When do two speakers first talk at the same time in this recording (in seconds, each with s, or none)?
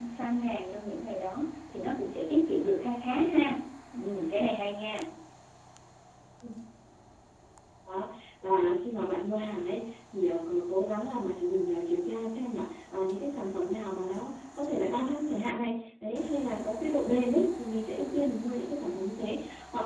none